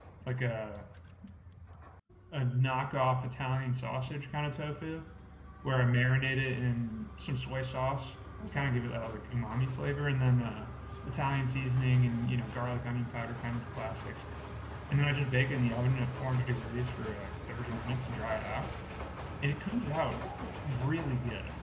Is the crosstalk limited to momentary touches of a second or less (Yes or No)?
Yes